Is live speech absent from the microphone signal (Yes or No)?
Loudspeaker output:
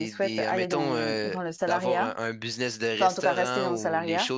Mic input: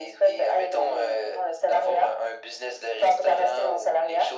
Yes